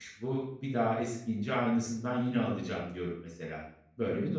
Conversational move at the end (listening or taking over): taking over